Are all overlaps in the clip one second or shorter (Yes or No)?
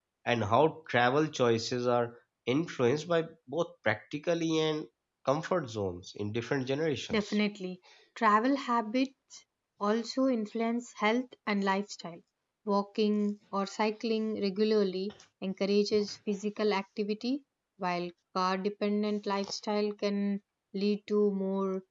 Yes